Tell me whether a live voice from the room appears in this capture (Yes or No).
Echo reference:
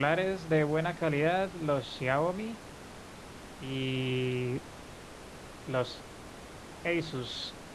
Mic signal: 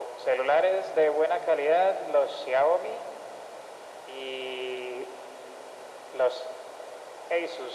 No